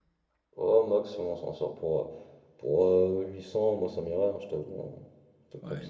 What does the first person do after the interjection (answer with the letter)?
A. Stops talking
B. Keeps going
A